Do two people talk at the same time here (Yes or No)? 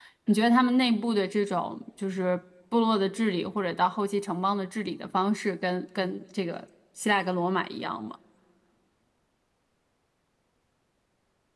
No